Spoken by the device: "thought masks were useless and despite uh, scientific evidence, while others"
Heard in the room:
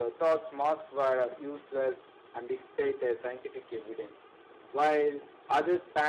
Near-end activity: none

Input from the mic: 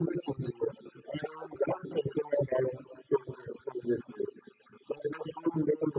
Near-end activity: none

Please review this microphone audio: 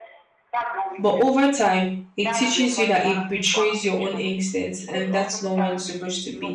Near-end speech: present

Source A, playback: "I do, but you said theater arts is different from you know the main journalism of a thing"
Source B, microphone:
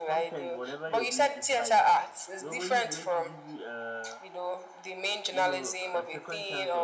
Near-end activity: present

